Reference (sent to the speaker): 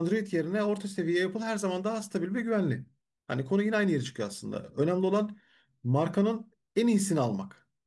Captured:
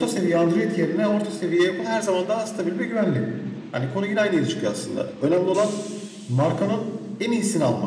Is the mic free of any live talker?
Yes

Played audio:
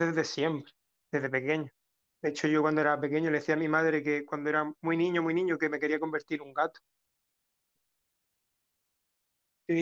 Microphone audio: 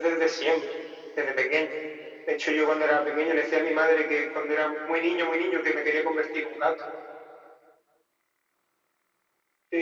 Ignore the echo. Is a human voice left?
No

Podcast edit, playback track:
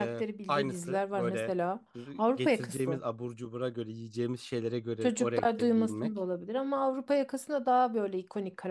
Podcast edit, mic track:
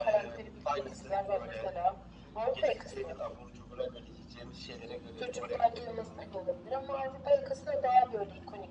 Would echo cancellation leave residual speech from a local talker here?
No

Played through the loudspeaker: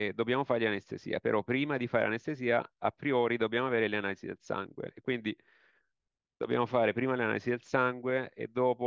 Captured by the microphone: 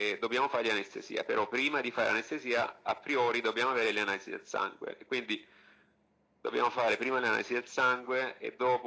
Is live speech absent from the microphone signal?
Yes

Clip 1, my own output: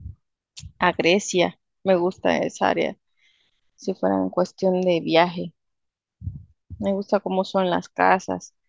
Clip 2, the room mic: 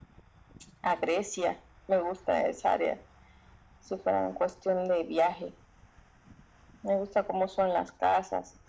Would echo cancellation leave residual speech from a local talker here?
No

